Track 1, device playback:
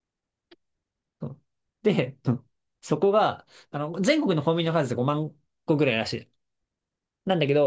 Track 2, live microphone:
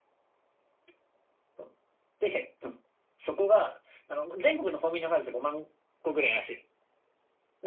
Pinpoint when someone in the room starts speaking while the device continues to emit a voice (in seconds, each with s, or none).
none